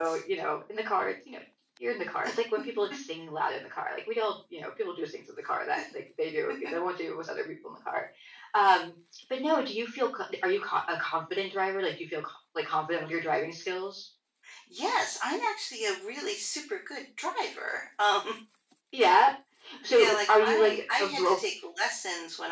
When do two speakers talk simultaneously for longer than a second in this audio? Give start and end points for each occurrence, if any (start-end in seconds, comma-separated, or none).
19.9-21.4